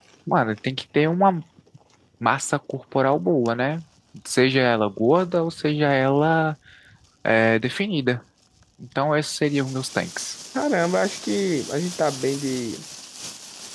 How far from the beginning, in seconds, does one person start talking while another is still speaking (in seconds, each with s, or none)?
none